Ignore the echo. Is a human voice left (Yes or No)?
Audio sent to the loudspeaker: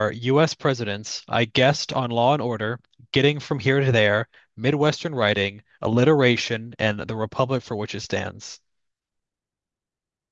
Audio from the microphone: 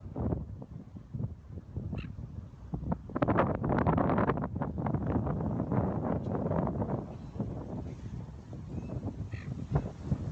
No